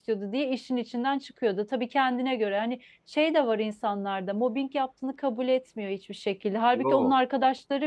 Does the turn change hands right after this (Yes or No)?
No